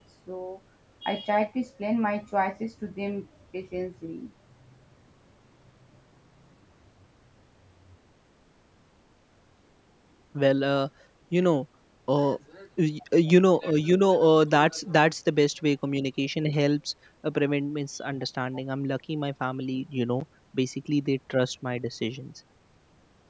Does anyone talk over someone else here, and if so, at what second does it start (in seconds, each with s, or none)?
none